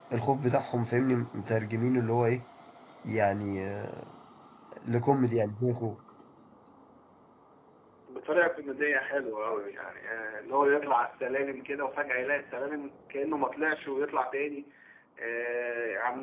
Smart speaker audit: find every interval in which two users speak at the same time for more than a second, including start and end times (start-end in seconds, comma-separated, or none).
none